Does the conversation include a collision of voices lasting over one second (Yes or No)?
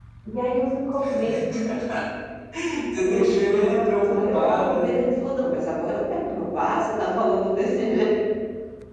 Yes